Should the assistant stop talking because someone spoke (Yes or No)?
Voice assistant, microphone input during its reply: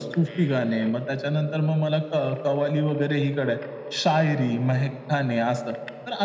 No